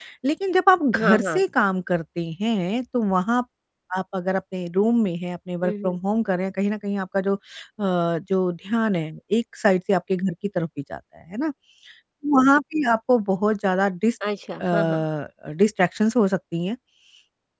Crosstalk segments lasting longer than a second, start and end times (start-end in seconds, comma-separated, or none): none